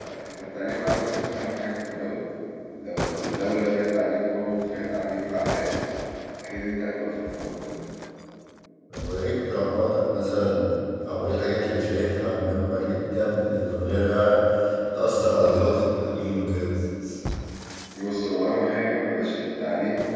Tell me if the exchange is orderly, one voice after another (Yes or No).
Yes